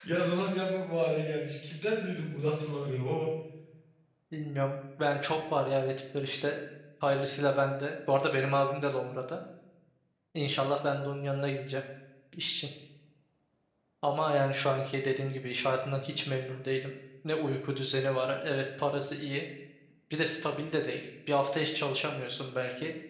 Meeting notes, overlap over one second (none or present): none